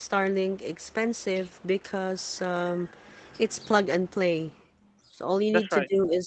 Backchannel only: Yes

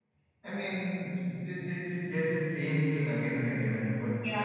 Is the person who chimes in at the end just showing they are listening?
No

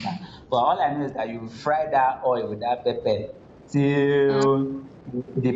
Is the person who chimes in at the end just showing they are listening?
Yes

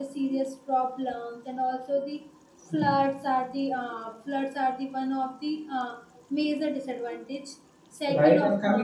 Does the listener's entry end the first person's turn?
Yes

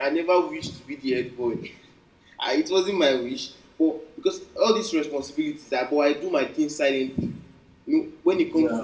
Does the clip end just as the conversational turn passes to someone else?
No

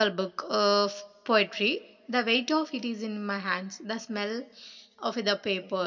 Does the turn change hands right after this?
No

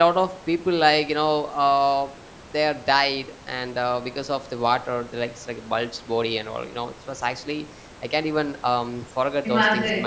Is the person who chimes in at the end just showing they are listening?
Yes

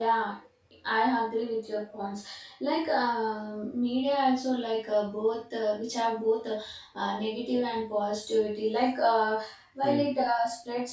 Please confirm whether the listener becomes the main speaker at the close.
No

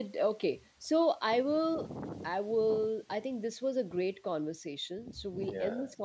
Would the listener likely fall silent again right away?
Yes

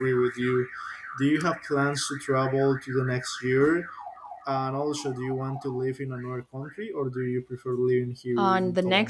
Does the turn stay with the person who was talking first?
No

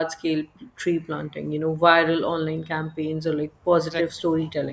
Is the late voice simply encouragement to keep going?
Yes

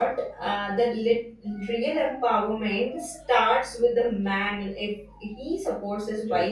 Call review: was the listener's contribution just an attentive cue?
No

